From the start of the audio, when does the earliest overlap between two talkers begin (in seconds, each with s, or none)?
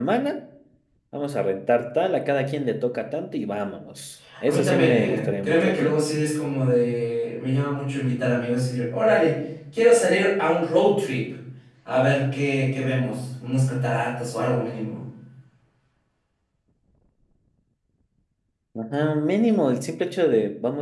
4.5 s